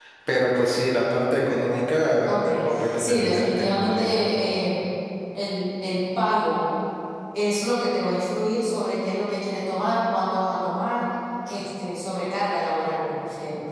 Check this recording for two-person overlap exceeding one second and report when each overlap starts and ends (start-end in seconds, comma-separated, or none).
2.3-4.3